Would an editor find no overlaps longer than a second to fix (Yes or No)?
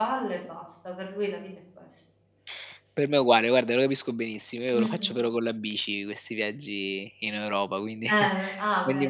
Yes